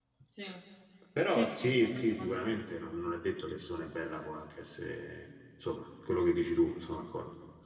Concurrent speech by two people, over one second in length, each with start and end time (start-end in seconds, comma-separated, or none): 1.3-2.6